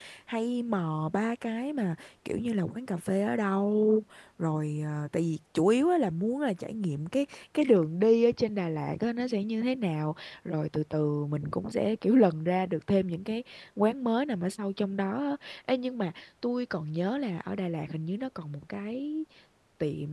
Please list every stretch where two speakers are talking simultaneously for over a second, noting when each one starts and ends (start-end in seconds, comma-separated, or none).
none